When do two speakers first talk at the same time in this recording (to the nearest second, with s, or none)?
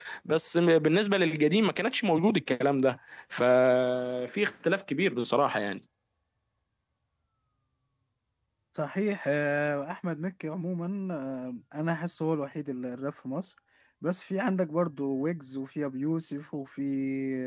none